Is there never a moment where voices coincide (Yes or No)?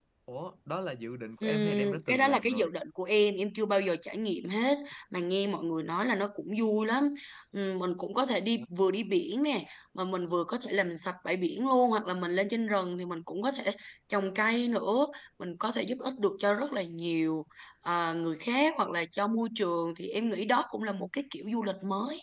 No